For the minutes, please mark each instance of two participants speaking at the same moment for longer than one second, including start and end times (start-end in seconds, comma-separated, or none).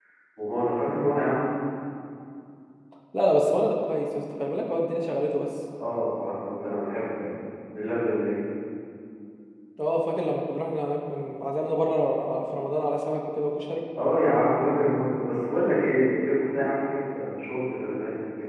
none